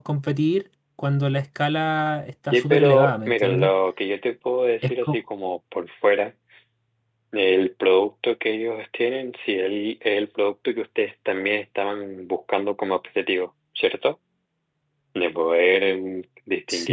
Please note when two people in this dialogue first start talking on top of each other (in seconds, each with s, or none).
2.5 s